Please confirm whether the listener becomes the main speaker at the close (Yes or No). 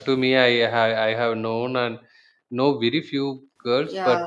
No